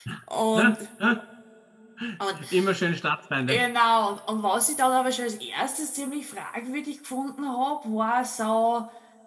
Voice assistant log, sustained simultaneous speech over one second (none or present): none